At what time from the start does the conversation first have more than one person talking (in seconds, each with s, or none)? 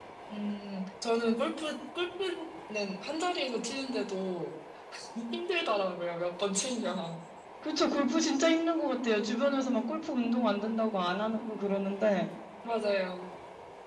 none